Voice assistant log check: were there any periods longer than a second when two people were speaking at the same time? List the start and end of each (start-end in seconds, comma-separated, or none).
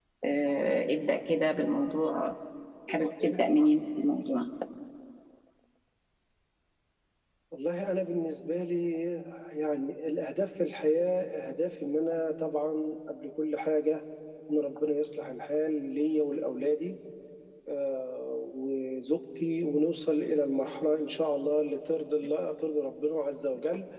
none